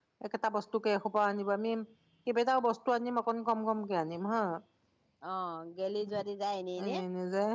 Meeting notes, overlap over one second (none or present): none